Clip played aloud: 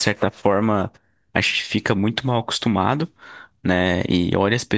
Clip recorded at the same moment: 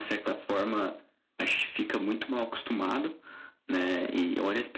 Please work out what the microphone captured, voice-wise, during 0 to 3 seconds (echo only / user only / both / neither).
echo only